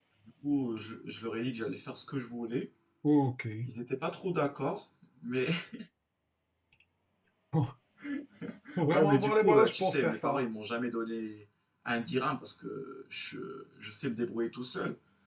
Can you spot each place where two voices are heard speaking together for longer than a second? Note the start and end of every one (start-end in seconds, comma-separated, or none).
8.9-10.4